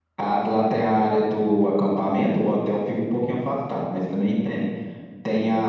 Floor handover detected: No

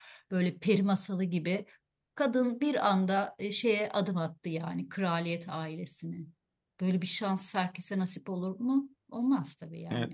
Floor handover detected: Yes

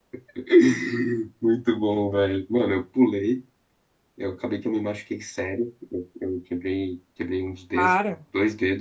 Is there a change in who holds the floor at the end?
No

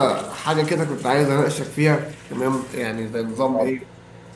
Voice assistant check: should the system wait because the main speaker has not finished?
Yes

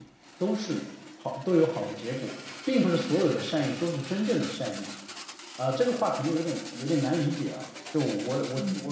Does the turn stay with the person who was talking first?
No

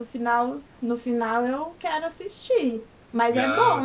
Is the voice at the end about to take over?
Yes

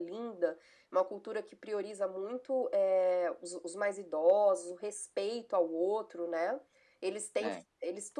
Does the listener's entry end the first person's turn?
No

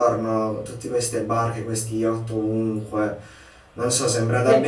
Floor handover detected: No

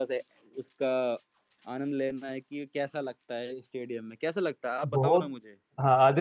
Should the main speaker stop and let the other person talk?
Yes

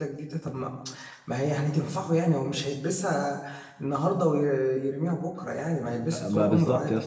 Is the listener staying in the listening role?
No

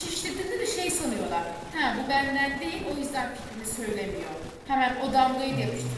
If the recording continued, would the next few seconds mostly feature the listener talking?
No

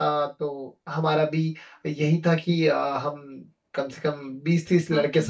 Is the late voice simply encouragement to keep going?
Yes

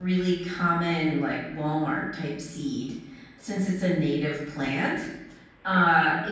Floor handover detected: No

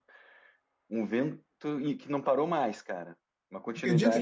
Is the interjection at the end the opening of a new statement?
Yes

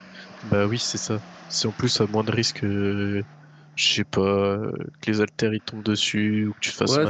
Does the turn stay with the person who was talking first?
No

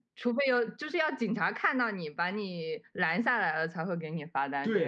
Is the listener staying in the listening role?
No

